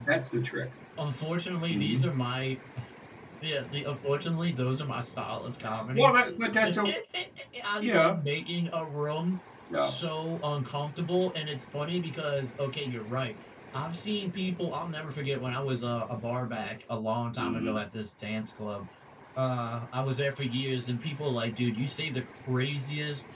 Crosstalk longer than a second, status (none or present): none